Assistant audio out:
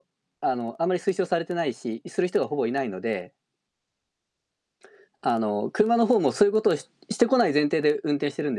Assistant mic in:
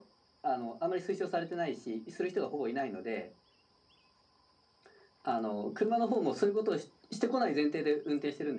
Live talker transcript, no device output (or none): none